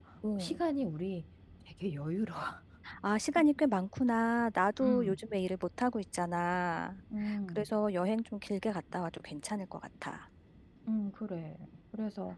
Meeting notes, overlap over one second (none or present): none